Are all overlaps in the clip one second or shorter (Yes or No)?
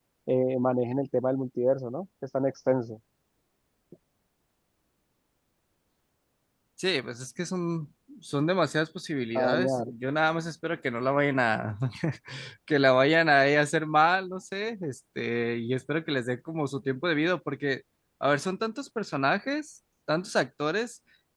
Yes